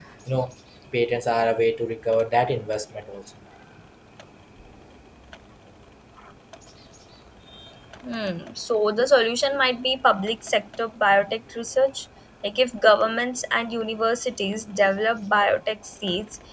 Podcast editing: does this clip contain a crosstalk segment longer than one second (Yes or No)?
No